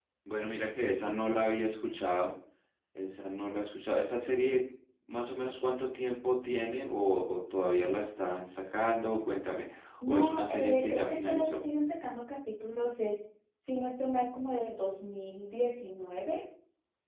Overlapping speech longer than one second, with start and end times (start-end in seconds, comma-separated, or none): 10.1-11.6